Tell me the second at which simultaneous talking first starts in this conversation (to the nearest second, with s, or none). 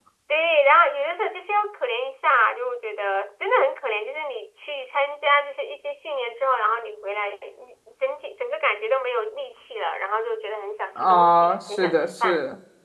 11 s